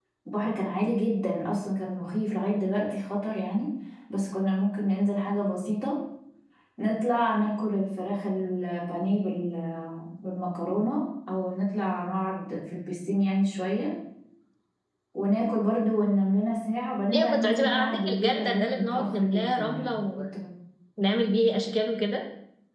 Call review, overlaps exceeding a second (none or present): present